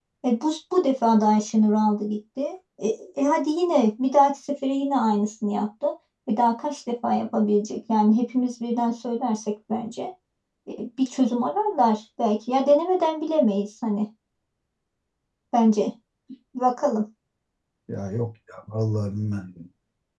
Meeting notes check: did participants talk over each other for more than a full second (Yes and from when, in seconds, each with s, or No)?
No